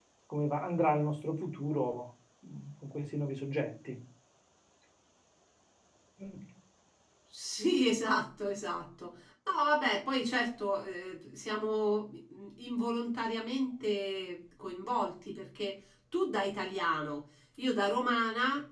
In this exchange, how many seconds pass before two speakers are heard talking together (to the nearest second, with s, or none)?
none